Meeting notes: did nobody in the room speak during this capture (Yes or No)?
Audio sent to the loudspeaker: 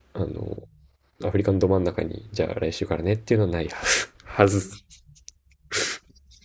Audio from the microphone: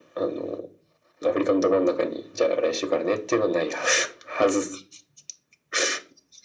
Yes